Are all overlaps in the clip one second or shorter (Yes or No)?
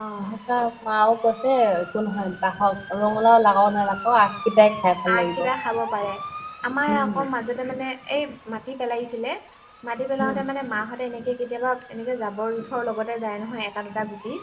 Yes